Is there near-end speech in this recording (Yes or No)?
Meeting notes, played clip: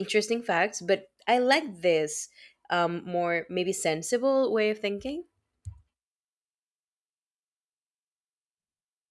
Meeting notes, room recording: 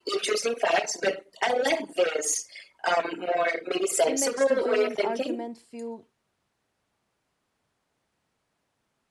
Yes